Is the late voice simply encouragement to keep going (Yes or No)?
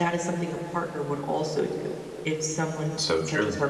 Yes